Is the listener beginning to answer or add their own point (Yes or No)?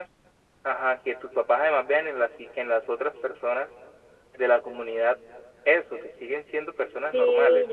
Yes